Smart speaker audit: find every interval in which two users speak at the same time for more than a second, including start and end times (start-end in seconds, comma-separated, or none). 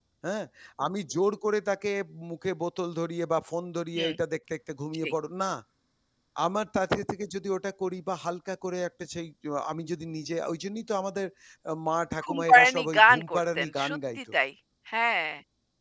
12.2-14.2